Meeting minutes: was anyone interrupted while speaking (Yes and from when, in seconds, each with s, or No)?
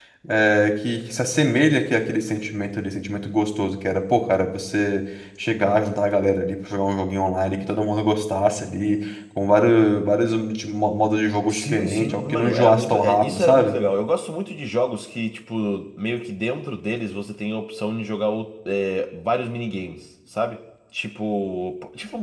Yes, from 11.5 s